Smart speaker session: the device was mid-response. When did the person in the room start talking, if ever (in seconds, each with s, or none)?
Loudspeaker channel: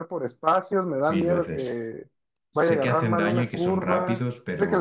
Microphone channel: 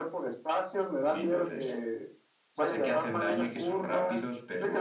none